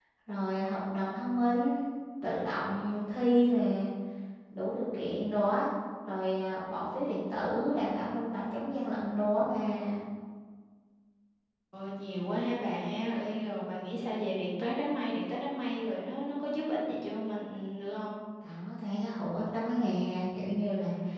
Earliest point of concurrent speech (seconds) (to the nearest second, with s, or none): none